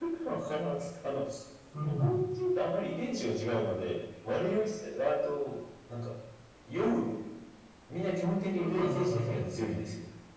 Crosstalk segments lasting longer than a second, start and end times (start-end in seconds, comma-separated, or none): 8.6-9.9